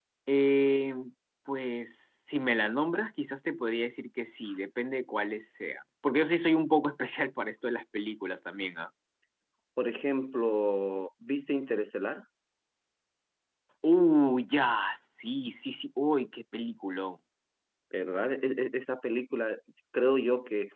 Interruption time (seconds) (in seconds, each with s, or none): none